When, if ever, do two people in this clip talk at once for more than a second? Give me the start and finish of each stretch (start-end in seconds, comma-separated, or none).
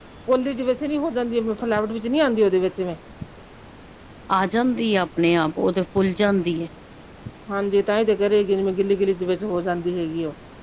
none